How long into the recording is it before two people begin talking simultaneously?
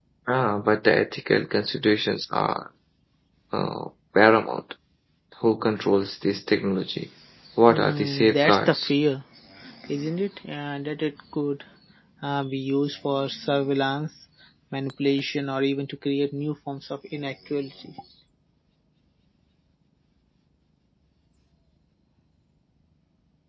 7.7 s

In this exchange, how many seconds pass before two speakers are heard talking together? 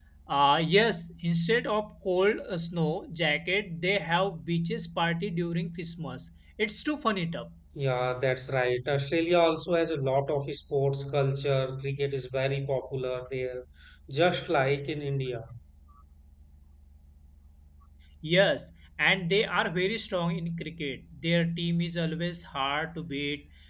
none

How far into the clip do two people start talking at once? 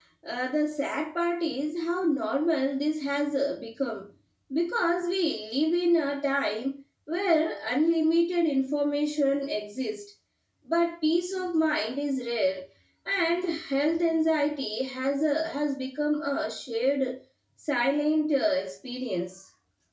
none

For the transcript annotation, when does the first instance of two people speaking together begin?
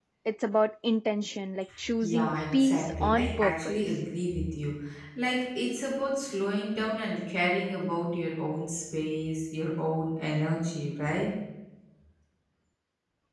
1.8 s

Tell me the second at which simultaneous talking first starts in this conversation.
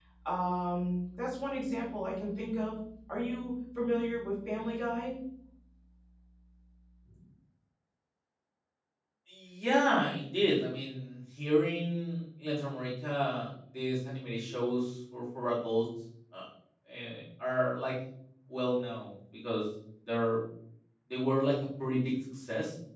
none

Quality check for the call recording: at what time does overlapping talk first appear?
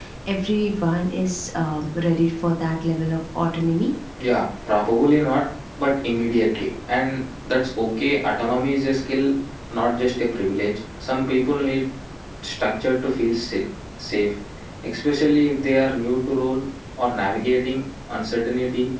none

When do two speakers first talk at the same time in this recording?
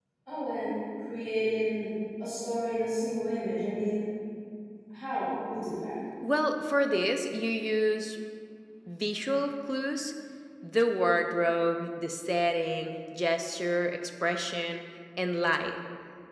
none

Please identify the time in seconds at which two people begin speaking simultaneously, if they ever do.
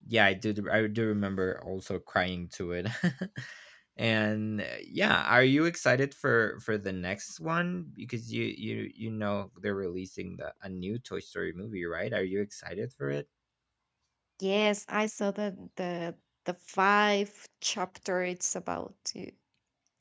none

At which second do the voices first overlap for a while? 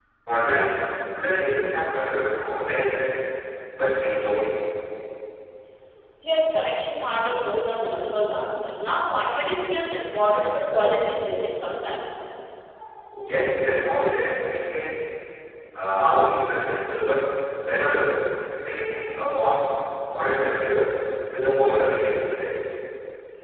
none

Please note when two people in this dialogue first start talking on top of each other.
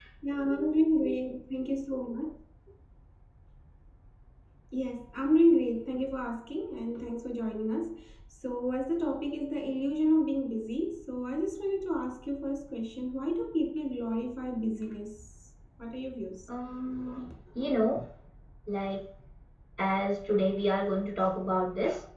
none

